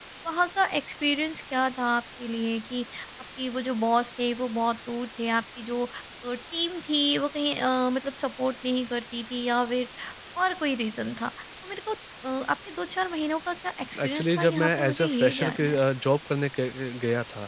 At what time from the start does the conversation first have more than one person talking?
14 s

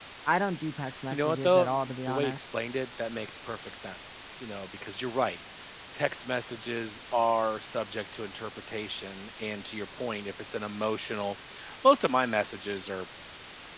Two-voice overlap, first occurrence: 1 s

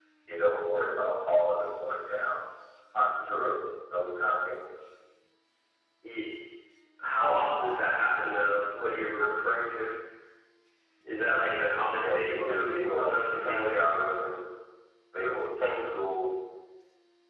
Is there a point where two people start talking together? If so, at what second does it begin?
12 s

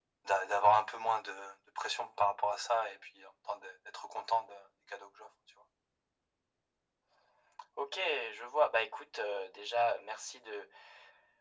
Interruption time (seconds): none

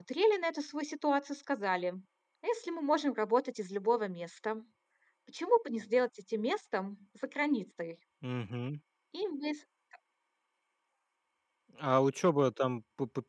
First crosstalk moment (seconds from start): none

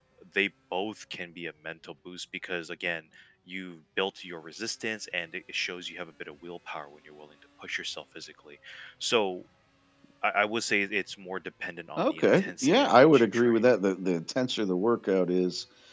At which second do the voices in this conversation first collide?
12 s

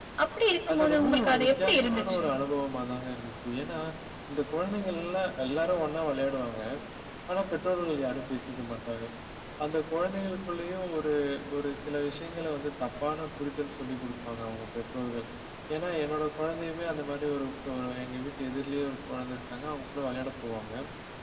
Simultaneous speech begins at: 1 s

